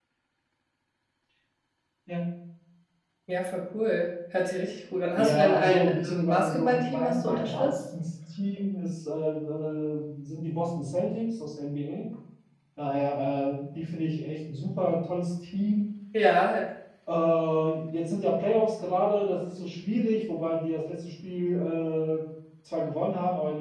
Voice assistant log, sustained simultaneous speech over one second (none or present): present